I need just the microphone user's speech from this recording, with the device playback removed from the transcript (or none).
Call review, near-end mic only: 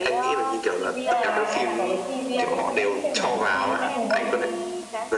Thế là em có cái phim kiểu mấy phim Anh thích xem mấy cái phim anh hùng không?